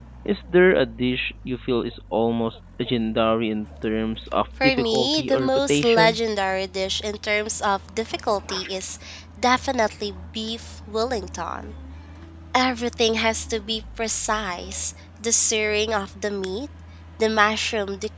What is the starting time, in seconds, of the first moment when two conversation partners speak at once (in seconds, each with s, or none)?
4.6 s